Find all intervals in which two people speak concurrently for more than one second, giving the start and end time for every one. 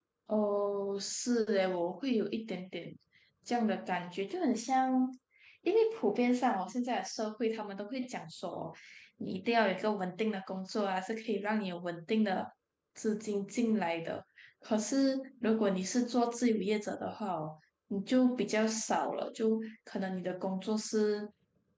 none

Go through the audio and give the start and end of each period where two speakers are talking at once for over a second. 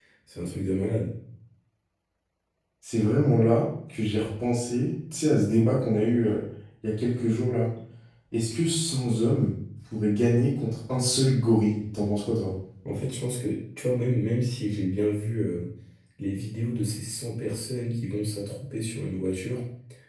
none

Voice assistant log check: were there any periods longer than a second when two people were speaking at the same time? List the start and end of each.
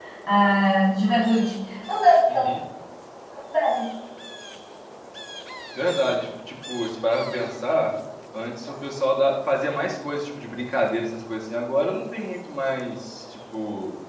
none

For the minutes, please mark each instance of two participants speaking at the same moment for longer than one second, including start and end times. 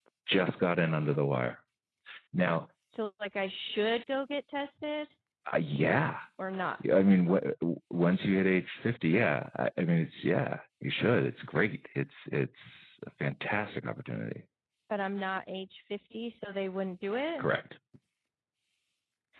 none

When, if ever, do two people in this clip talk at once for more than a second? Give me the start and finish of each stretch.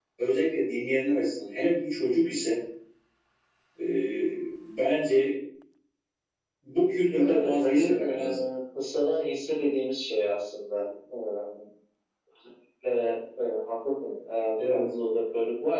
7.1-8.4

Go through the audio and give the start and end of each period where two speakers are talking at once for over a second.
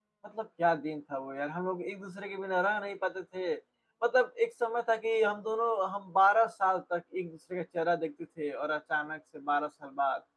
none

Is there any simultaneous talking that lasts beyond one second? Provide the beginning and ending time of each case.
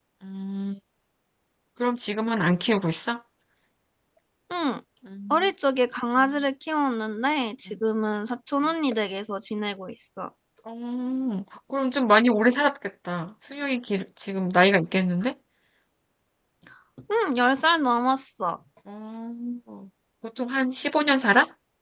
none

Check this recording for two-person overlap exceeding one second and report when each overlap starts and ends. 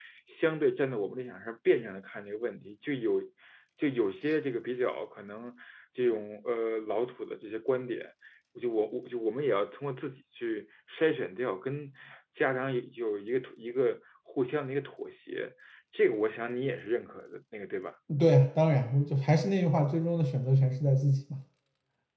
none

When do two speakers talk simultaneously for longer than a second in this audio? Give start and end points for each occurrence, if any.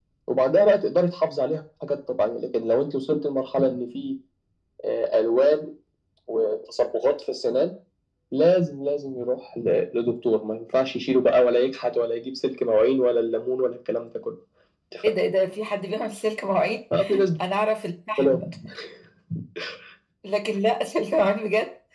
none

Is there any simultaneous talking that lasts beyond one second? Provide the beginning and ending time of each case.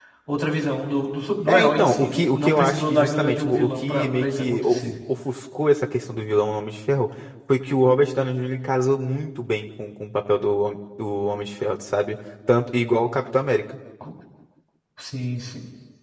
1.5-4.8

